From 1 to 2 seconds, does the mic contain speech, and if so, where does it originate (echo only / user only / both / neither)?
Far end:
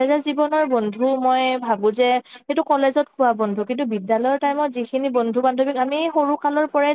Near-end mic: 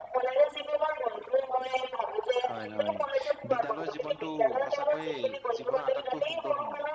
echo only